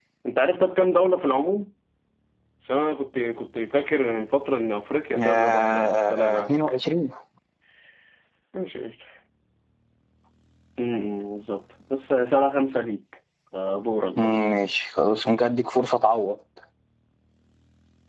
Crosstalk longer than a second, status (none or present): present